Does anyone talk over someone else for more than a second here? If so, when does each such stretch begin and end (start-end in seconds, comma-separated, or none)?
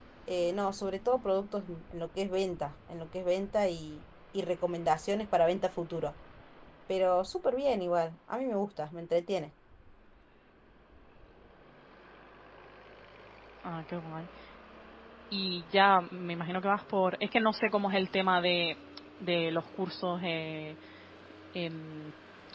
none